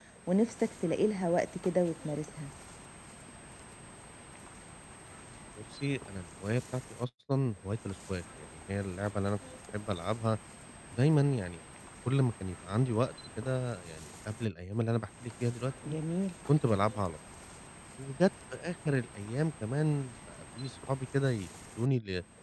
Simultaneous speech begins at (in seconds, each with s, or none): none